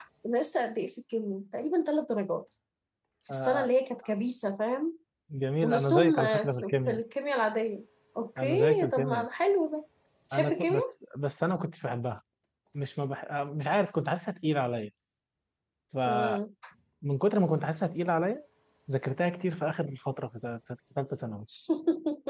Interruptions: present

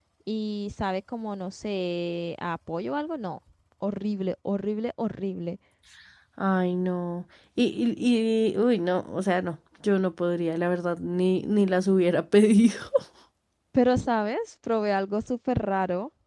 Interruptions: none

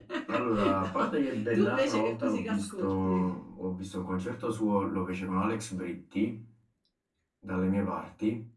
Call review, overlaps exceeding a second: present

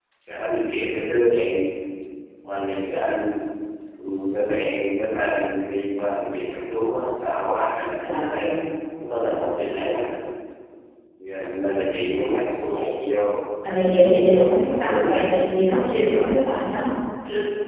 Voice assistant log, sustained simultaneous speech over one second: present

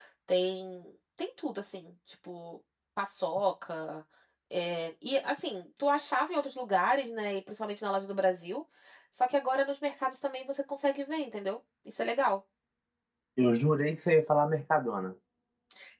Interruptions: none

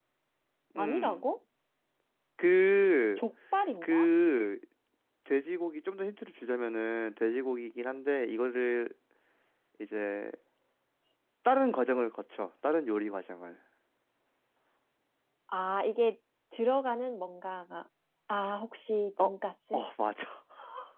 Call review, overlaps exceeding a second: none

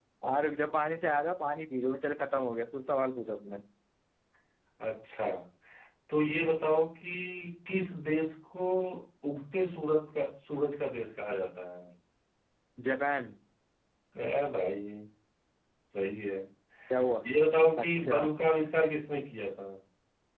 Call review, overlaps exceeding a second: none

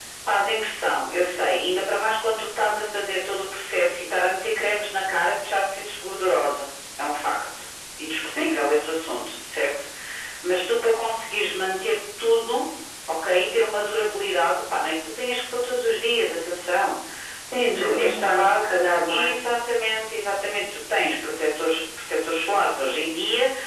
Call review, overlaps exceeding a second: present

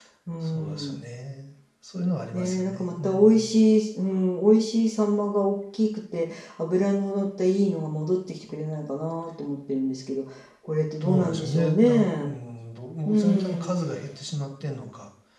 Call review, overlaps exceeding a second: present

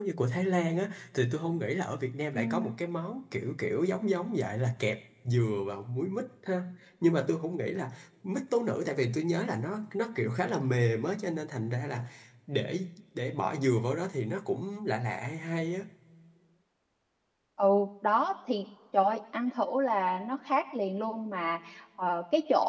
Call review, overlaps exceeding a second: none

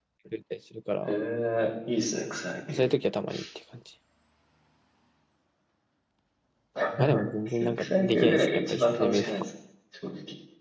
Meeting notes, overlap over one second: present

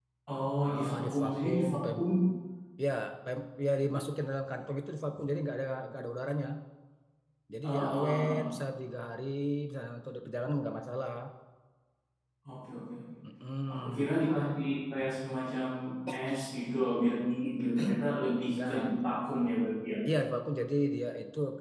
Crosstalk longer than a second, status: present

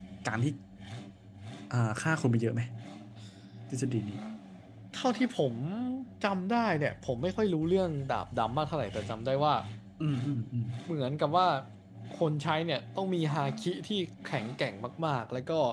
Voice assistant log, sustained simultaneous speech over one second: none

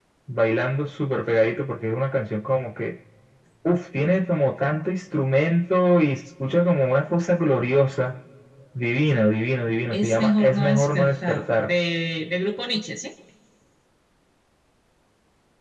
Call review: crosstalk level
present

